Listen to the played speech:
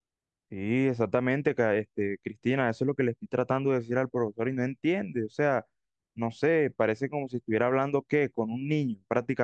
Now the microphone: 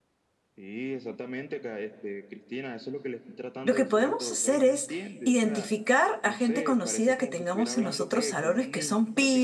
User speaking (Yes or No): Yes